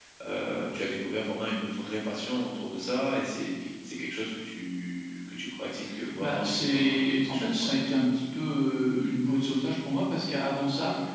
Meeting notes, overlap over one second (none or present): present